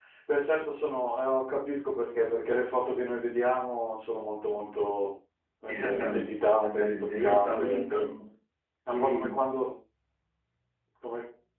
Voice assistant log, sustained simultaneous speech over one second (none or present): present